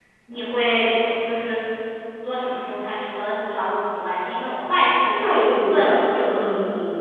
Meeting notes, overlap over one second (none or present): present